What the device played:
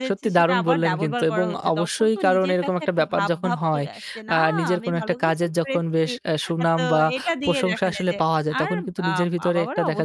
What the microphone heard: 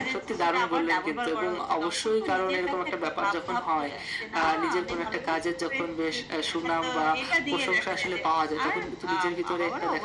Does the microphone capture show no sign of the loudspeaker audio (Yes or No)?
No